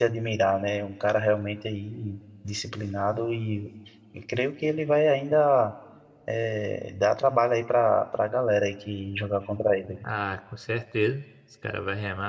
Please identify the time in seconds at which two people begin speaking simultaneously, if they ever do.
none

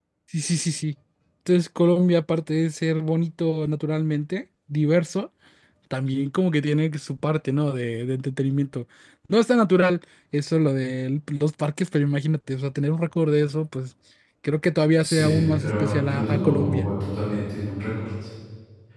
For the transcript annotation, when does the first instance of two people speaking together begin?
15.0 s

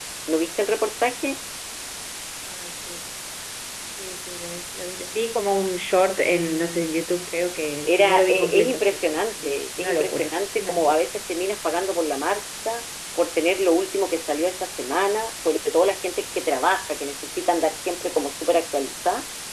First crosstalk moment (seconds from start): 7.8 s

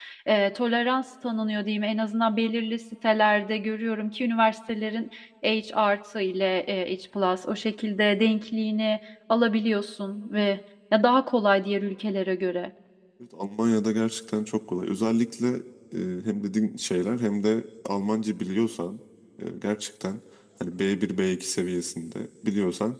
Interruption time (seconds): none

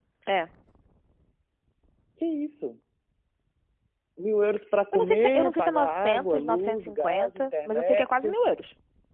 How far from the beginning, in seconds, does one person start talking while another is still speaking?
4.9 s

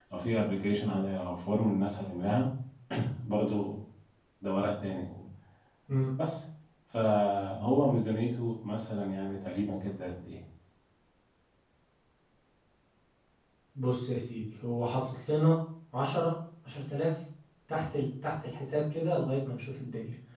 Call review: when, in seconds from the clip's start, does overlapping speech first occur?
none

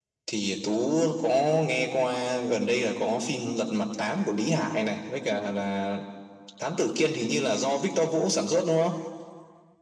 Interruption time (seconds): none

